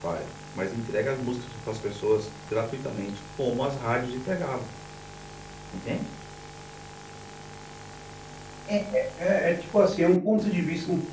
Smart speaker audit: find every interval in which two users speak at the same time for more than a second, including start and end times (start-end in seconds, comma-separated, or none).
none